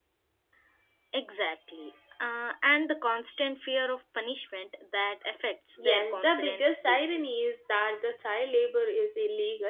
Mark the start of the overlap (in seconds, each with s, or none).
5.8 s